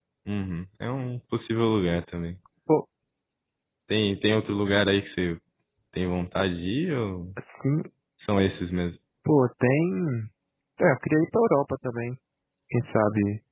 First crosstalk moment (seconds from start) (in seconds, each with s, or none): none